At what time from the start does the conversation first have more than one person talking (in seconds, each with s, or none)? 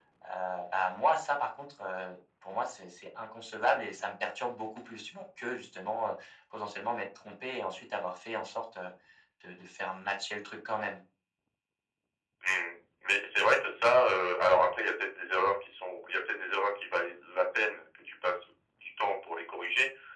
none